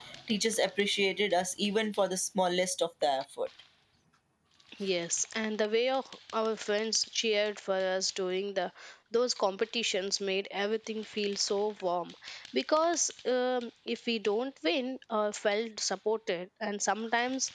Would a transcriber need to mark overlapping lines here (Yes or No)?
No